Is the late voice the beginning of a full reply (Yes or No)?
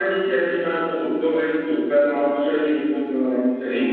Yes